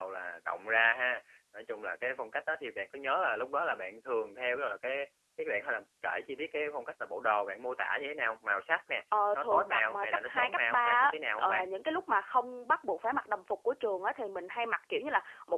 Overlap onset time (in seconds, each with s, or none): 9.1 s